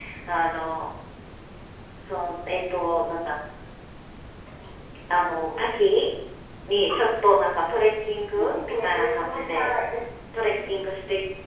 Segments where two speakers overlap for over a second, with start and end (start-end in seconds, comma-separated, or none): 8.4-9.7